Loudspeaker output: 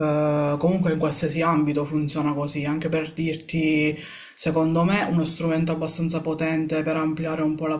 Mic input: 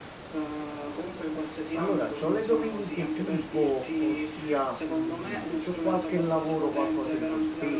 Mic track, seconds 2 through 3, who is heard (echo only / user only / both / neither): both